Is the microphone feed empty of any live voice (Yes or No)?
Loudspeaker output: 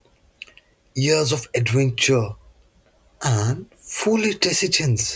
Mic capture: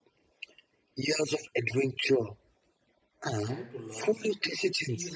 No